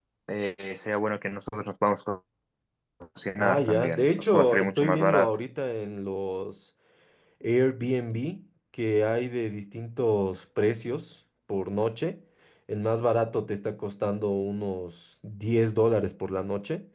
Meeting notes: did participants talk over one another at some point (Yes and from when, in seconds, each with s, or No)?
Yes, from 3.4 s